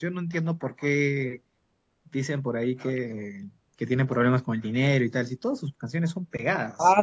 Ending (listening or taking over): taking over